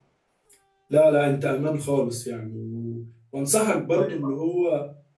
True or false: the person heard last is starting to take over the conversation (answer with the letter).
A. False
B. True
A